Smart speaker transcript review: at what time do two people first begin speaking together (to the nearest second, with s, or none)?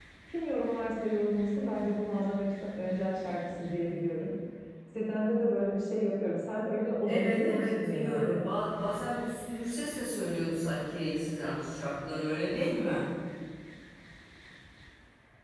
7 s